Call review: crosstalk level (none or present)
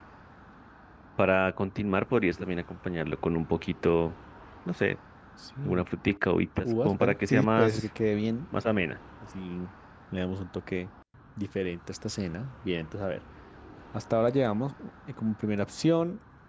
present